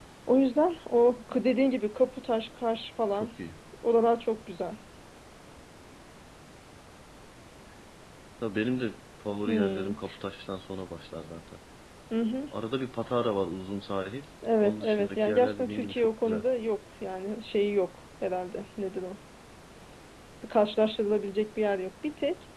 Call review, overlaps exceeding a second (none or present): present